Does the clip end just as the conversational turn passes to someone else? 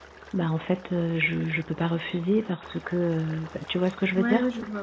Yes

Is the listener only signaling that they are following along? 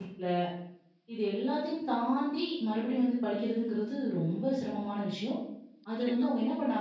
Yes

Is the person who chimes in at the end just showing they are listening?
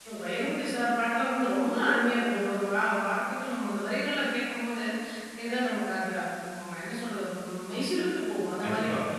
No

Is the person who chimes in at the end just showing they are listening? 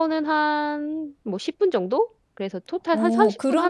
No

